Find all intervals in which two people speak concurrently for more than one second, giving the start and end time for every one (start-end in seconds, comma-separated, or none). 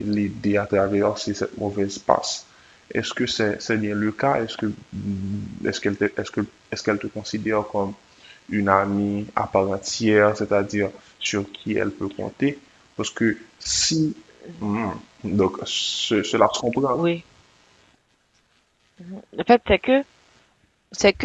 none